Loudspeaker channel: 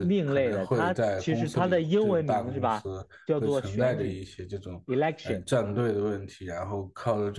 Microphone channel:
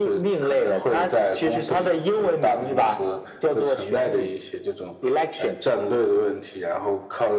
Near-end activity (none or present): none